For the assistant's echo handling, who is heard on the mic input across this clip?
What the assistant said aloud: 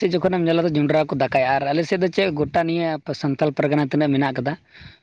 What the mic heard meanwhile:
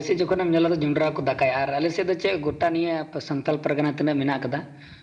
echo only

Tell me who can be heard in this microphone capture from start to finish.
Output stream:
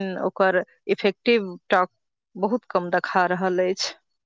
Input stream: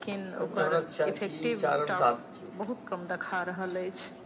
both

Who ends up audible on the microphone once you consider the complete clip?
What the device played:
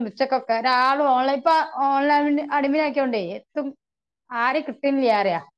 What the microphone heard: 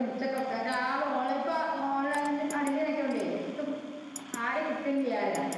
echo only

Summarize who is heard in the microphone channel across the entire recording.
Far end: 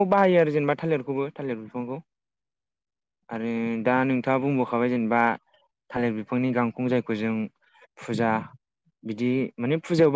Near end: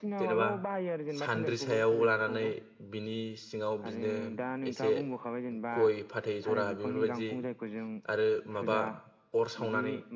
both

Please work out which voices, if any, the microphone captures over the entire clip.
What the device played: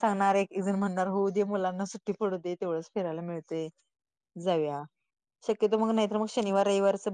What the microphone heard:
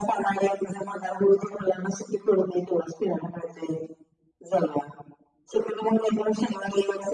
echo only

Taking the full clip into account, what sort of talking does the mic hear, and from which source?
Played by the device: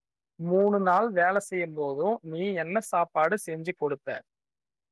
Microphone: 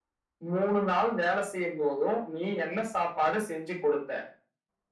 echo only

